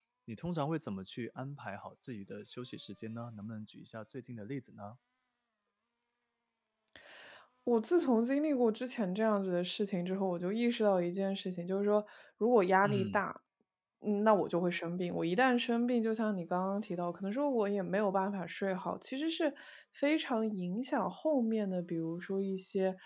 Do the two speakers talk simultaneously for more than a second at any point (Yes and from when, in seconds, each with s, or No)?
No